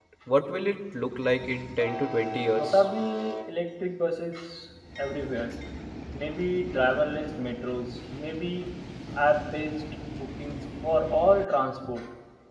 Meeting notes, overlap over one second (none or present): none